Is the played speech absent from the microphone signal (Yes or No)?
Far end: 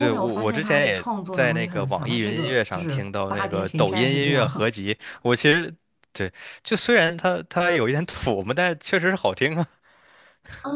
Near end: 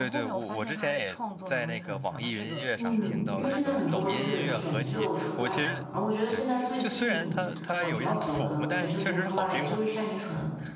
No